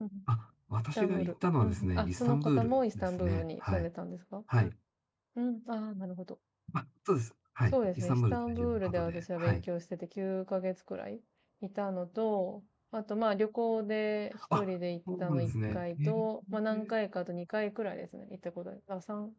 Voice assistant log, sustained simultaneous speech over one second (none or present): present